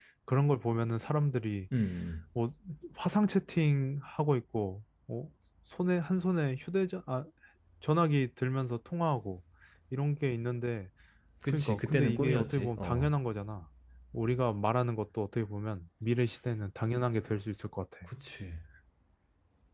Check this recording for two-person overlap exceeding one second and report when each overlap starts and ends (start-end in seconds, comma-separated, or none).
11.5-13.1